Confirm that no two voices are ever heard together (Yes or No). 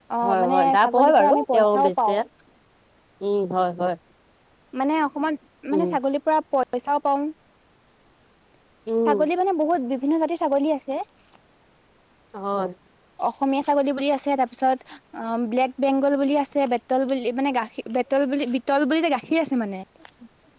No